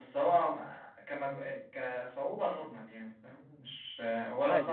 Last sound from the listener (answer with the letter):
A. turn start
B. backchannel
A